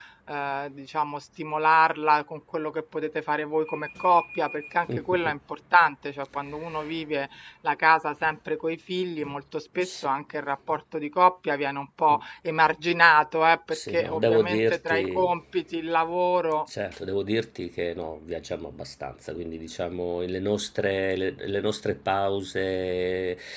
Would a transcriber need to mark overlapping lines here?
Yes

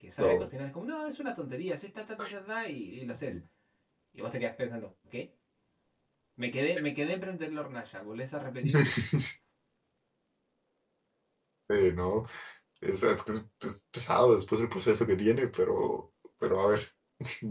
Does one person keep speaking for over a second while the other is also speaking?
No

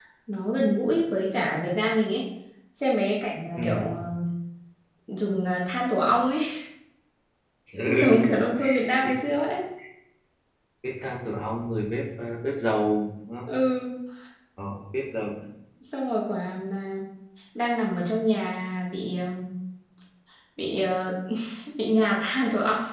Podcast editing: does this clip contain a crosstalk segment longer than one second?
No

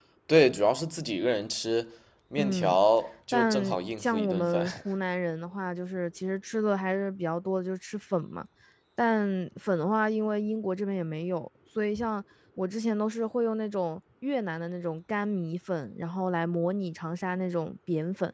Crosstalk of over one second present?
Yes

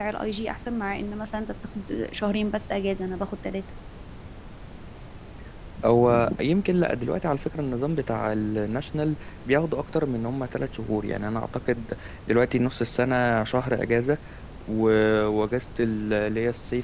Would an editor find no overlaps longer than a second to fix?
Yes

